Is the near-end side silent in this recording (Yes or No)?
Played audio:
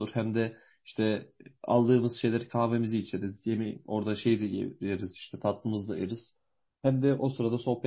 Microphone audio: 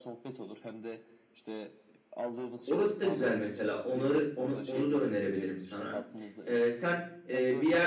No